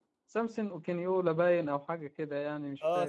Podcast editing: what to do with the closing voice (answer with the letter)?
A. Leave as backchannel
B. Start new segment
B